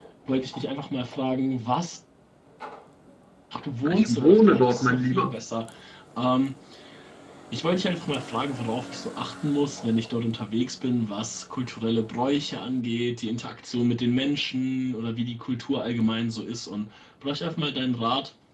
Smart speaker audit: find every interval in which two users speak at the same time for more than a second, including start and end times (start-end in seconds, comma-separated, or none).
3.9-5.4